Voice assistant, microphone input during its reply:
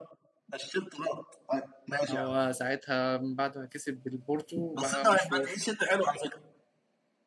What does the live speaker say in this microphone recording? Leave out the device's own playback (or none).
هو ساعتها من بعد ما كسب بالبورتو بقى مشهور